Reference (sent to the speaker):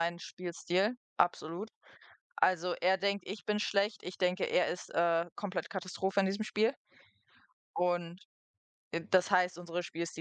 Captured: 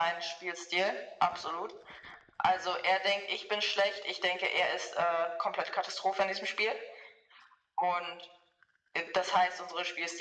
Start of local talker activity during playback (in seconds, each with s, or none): none